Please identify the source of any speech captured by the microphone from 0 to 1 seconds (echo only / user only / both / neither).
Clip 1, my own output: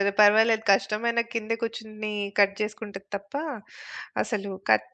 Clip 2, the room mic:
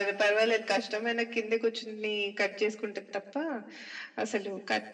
echo only